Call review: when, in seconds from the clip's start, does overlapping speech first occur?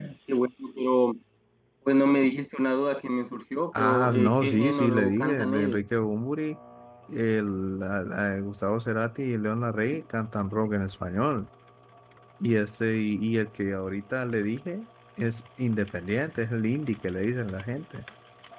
4 s

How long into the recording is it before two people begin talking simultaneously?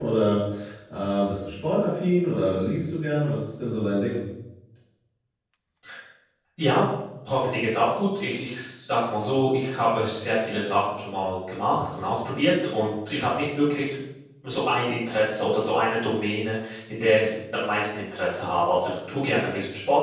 none

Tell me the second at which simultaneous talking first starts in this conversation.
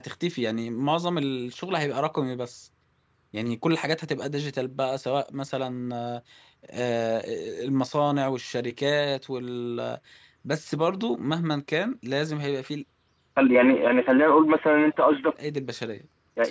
none

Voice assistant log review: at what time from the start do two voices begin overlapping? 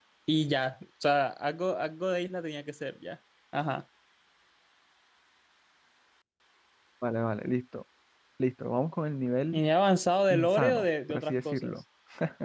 10 s

